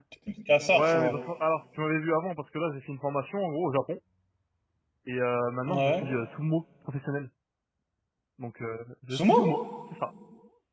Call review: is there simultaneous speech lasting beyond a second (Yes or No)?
No